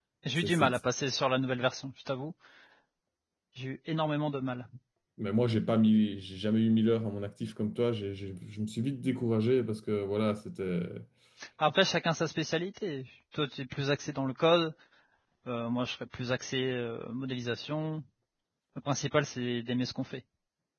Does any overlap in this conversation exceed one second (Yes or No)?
No